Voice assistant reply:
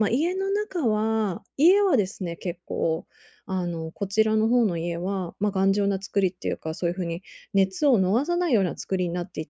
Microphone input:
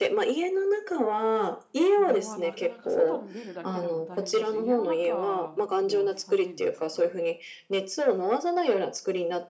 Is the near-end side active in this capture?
Yes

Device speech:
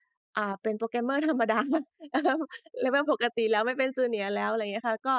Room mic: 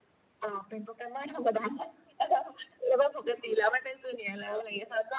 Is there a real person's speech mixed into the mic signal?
No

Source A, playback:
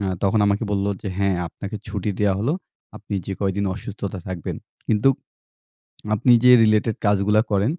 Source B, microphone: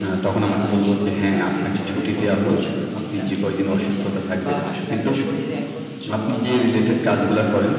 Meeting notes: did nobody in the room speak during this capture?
No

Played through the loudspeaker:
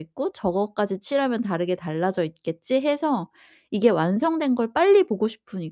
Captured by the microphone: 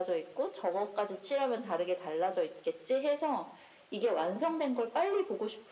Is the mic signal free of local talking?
Yes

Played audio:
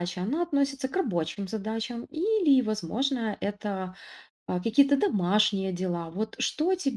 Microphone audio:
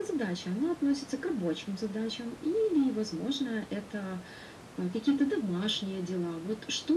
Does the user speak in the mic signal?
No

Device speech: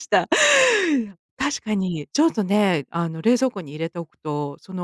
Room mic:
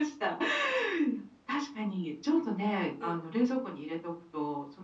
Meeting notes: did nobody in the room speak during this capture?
No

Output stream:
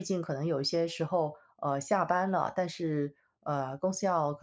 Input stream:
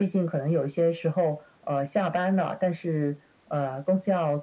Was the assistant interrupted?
No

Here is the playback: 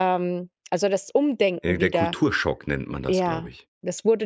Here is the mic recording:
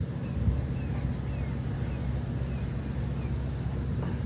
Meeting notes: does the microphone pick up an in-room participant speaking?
No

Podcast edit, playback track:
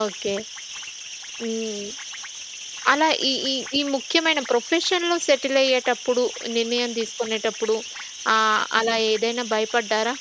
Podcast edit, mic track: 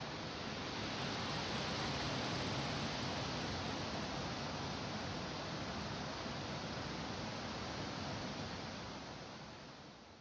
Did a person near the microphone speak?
No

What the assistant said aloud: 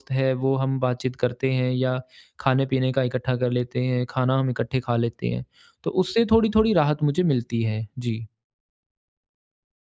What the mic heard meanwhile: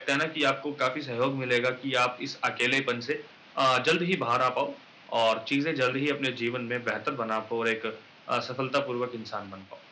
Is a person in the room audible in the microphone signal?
Yes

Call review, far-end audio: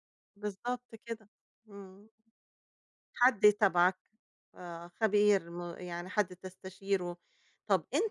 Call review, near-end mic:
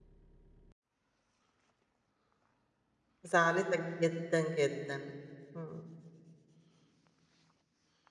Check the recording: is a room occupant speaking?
Yes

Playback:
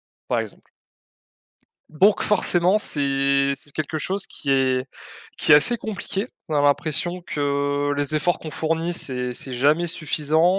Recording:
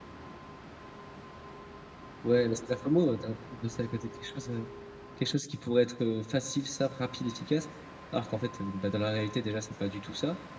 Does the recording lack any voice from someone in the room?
No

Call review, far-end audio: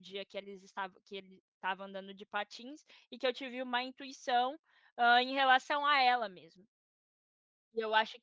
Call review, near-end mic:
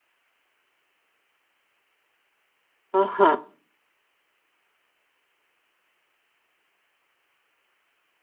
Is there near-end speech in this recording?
Yes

